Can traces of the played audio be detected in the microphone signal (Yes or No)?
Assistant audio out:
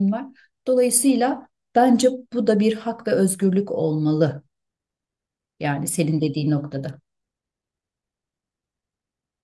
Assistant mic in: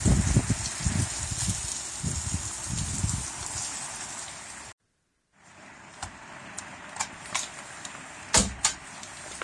No